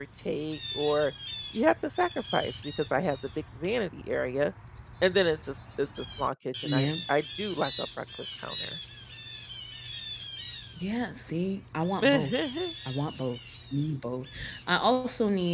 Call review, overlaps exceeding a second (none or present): none